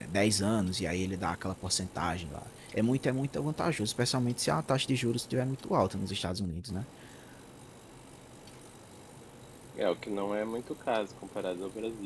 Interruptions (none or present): none